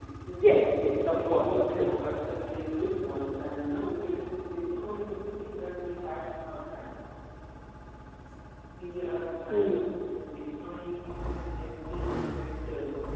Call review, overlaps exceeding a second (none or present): present